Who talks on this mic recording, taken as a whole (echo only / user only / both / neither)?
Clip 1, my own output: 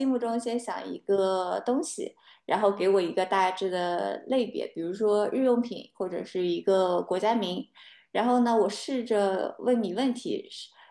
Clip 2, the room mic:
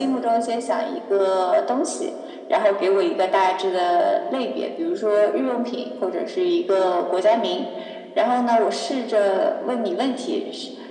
echo only